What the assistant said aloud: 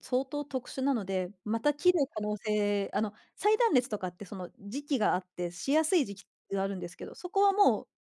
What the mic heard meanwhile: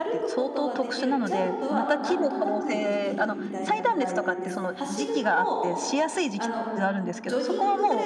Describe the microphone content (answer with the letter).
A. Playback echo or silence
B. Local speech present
B